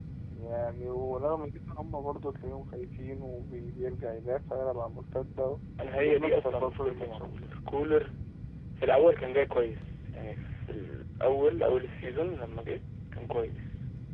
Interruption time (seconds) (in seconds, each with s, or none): 6.0 s